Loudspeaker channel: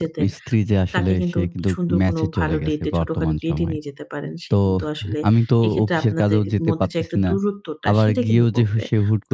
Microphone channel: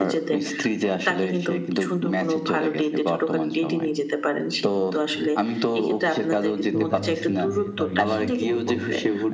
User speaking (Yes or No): Yes